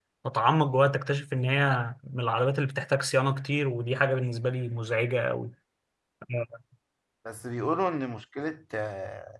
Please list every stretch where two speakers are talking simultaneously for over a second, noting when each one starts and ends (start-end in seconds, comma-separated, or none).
none